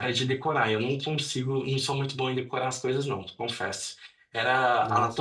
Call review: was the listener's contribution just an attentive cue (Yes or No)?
No